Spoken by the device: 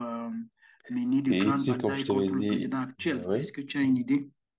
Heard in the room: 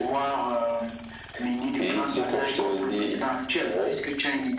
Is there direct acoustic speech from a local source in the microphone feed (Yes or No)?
No